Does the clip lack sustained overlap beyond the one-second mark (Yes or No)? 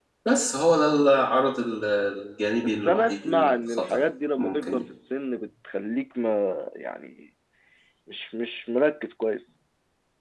No